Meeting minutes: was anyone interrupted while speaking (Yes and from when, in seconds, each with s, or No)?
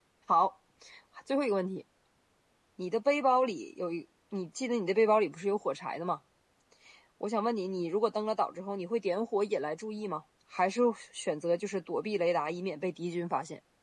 No